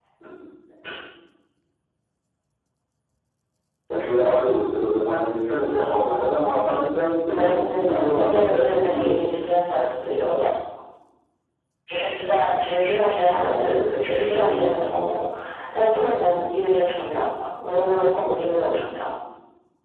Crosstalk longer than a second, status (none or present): present